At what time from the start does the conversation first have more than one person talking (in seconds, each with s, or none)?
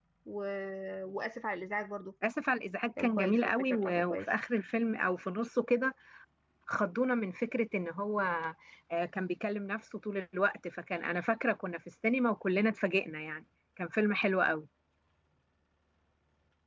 3.0 s